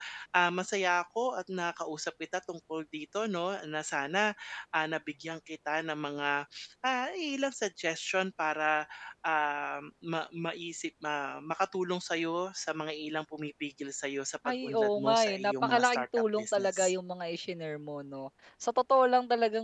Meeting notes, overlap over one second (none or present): present